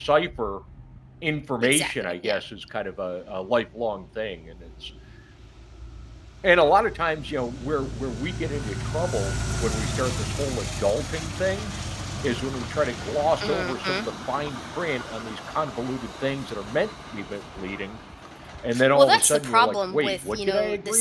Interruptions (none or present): present